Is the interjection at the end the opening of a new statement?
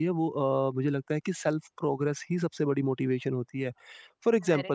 No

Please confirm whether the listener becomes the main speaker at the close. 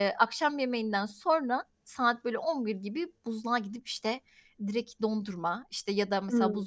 No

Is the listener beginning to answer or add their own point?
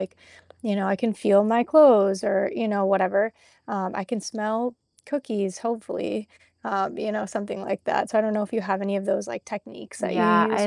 Yes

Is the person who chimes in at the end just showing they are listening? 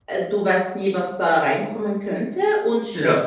Yes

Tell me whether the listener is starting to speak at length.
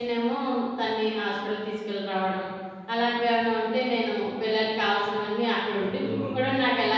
No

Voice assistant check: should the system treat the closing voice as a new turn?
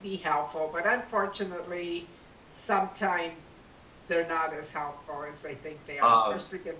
No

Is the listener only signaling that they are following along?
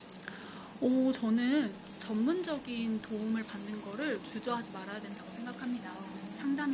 Yes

